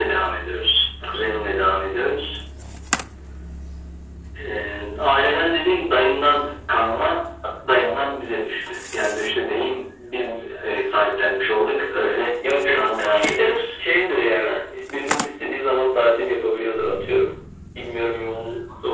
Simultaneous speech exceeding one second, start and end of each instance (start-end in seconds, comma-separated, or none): 12.4-13.7